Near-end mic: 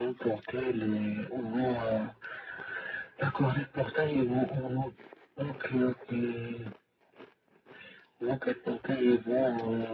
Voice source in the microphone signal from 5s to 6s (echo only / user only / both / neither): echo only